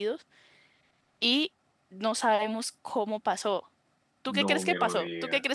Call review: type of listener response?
taking over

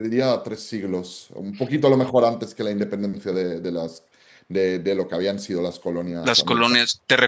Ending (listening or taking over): taking over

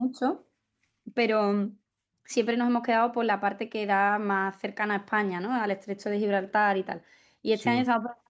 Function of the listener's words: listening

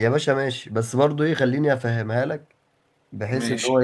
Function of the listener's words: listening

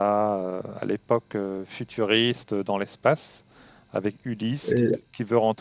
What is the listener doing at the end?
listening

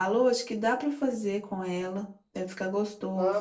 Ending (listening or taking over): taking over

